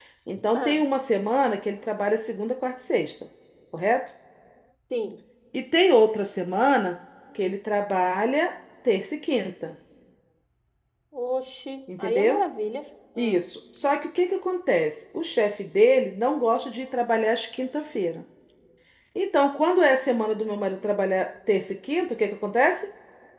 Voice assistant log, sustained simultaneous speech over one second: none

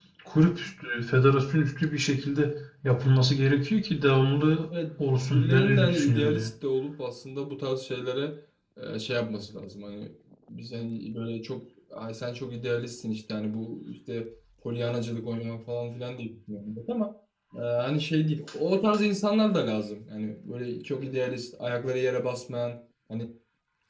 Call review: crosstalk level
present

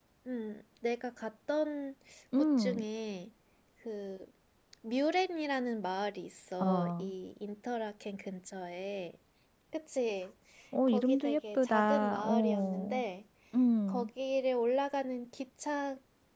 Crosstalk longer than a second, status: present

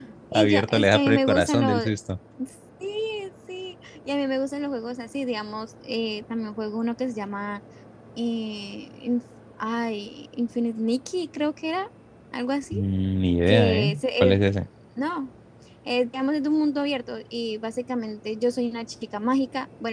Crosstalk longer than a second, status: present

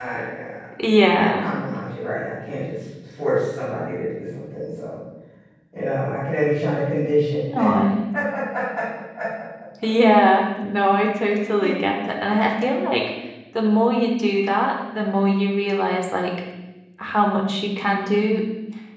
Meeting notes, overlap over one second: none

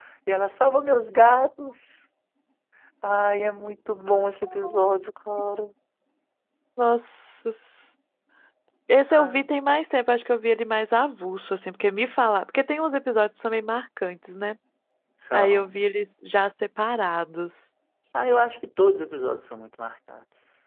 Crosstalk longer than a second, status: none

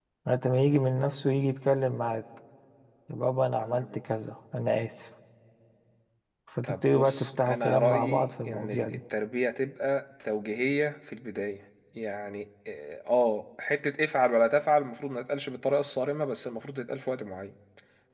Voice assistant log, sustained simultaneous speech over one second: present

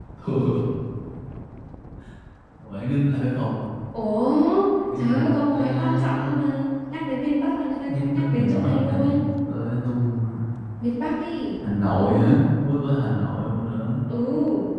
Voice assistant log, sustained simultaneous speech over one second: present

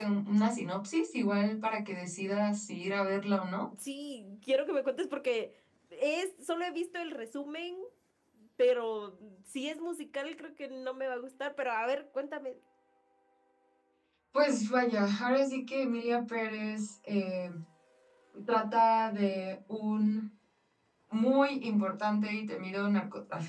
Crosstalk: none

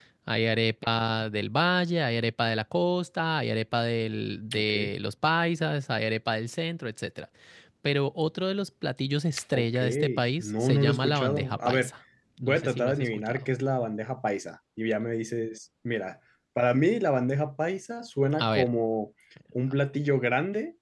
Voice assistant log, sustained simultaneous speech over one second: present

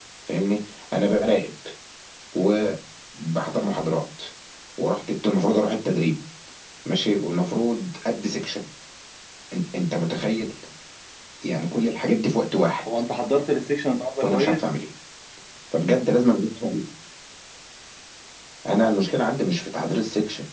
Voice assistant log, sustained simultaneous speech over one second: none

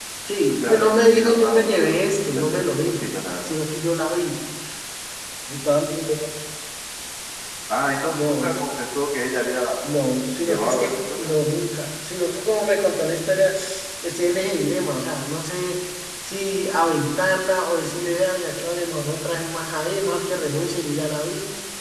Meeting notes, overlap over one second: present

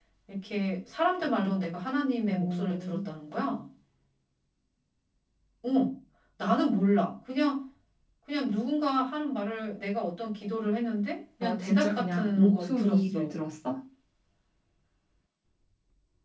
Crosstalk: present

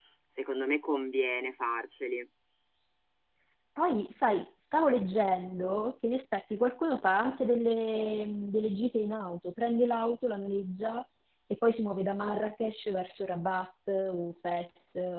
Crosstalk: none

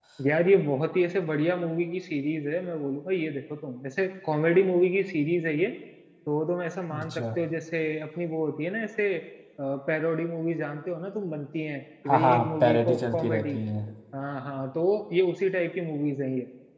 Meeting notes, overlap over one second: present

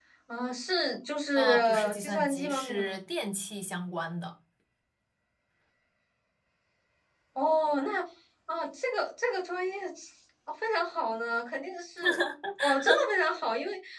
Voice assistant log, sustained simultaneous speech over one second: present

